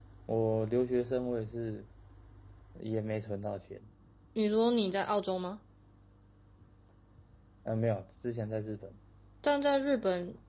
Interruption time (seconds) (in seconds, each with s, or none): none